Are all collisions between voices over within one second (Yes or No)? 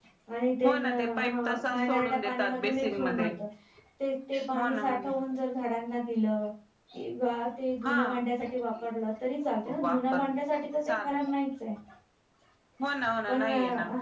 No